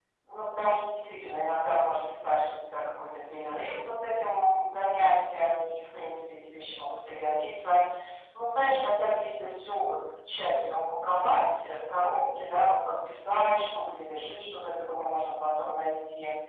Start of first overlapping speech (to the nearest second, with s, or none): none